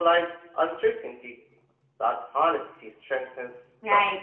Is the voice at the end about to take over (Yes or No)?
Yes